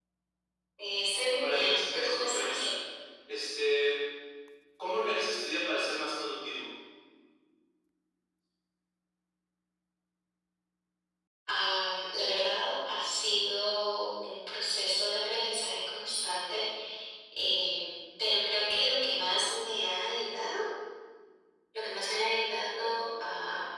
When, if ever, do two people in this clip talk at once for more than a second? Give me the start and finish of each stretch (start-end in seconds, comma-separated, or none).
1.4-2.6